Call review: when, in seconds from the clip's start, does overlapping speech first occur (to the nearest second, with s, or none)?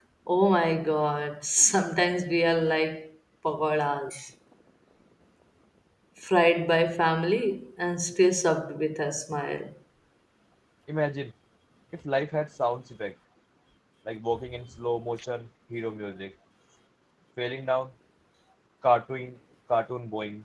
none